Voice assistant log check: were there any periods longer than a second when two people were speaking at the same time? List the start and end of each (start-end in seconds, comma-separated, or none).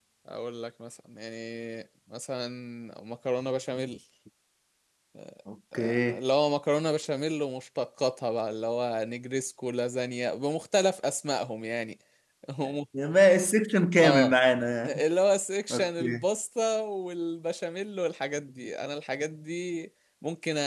none